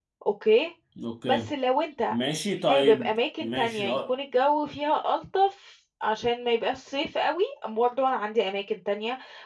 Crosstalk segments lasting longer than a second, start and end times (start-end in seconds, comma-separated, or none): 2.7-4.1